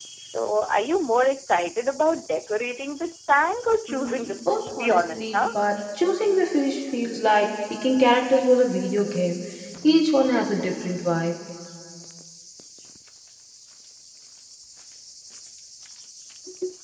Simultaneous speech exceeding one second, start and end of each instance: 3.9-5.4

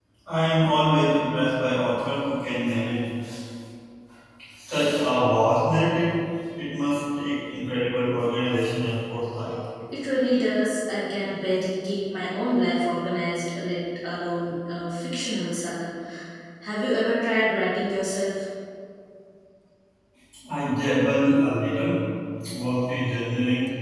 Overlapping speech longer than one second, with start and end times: none

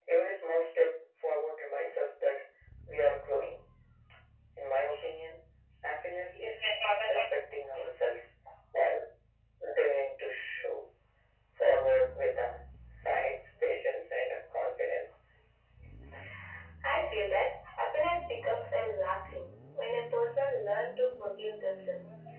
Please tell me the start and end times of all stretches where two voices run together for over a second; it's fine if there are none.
none

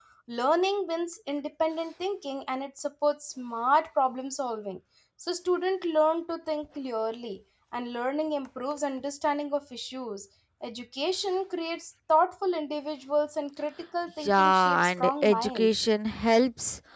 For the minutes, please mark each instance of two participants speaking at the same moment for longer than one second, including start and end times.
14.2-15.8

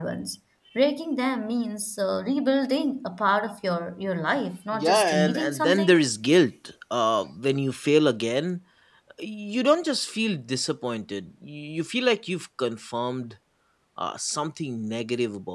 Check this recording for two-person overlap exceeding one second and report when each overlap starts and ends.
4.7-6.0

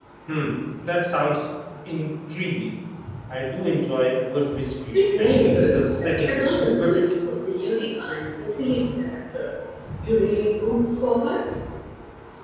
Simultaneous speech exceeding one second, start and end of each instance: 4.9-7.0

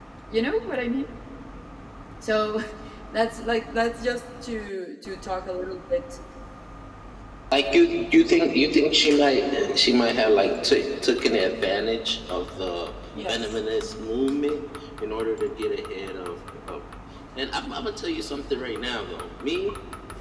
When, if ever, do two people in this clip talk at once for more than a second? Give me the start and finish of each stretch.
none

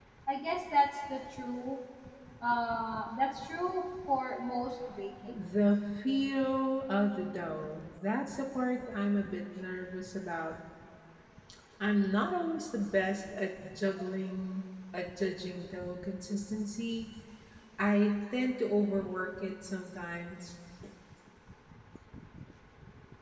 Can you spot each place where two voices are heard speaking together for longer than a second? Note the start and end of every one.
none

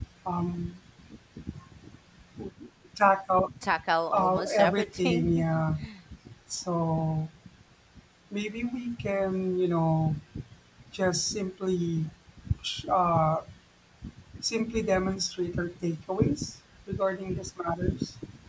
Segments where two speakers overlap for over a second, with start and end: 4.1-5.6

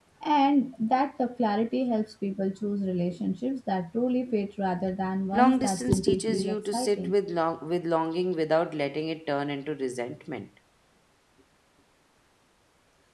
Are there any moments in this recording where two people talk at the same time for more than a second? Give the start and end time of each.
5.3-7.2

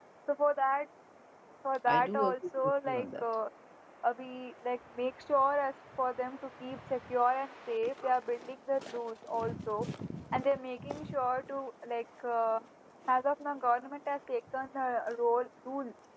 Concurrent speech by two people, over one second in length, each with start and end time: 1.9-3.2

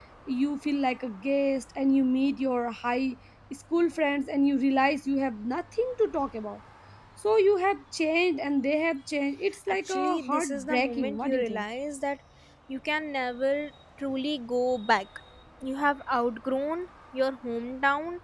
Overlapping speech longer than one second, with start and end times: 9.9-11.6

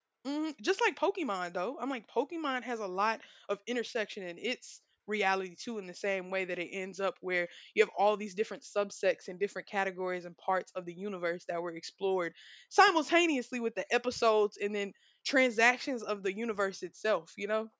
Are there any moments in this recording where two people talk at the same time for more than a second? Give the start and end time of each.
none

